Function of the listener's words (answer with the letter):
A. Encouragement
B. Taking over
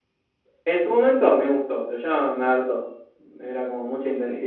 B